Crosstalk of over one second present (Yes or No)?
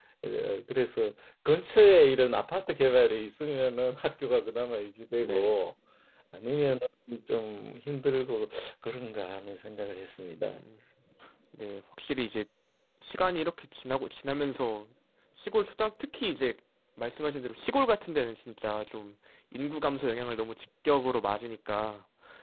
No